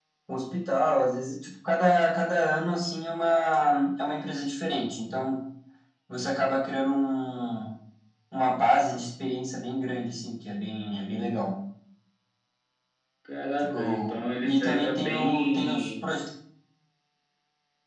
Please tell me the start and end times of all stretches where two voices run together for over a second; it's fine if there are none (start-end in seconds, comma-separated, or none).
13.6-16.0